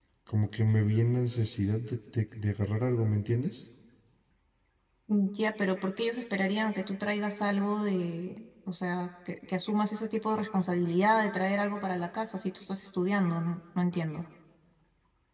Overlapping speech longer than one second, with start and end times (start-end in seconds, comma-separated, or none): none